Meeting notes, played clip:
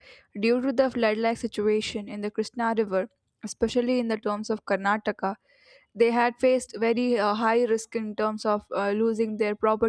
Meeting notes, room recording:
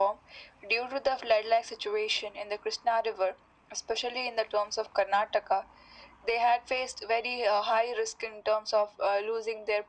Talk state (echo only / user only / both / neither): echo only